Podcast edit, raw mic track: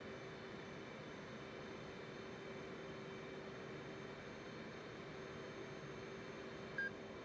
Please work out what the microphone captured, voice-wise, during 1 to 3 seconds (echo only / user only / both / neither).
neither